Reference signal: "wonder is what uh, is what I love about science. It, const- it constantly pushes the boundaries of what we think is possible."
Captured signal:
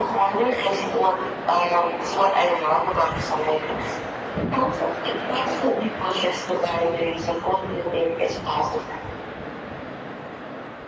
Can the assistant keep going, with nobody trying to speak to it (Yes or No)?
Yes